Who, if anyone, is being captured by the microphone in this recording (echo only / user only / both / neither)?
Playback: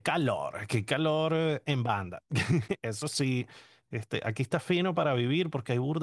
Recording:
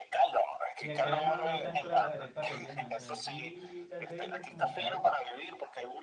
both